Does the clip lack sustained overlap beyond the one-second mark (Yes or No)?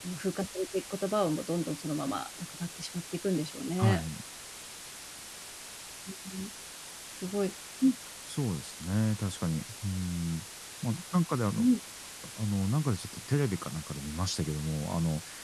Yes